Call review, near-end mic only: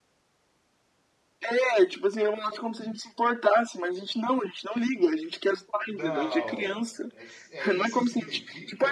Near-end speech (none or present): present